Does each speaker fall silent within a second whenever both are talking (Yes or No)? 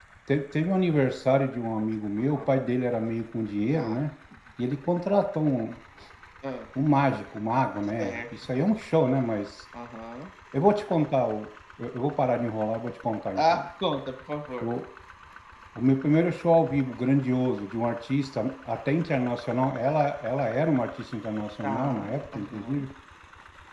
No